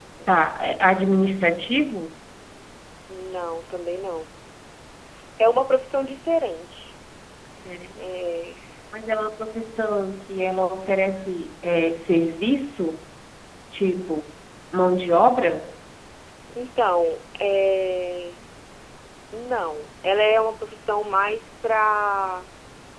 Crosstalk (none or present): none